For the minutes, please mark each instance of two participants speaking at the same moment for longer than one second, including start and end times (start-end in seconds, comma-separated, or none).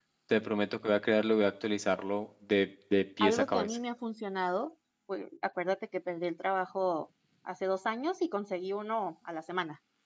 none